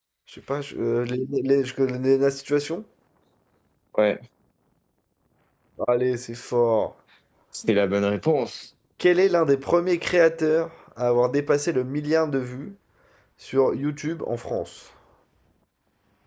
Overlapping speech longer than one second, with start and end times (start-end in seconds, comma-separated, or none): none